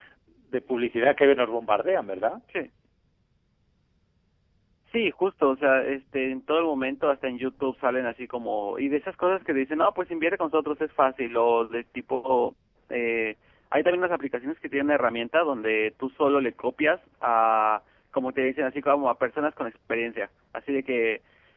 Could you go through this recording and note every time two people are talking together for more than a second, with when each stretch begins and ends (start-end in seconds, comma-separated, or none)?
none